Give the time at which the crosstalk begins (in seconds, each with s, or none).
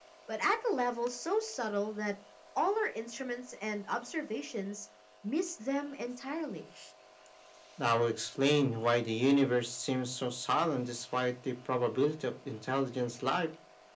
none